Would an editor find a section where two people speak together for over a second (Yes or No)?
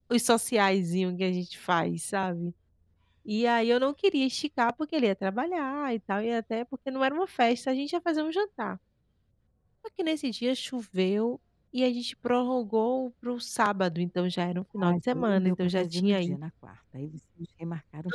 Yes